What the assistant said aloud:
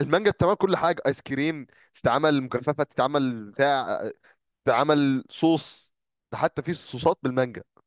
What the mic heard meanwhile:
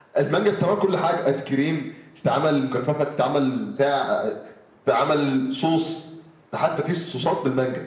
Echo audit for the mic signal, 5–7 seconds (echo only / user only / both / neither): echo only